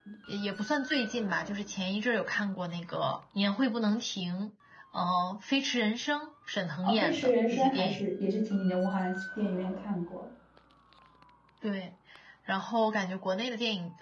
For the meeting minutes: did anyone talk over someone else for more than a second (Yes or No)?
Yes